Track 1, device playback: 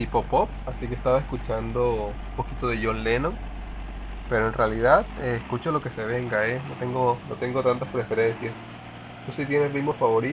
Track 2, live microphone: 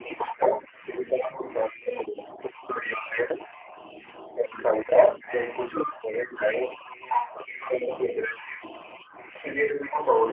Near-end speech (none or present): none